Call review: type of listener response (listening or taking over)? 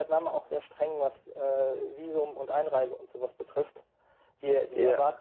listening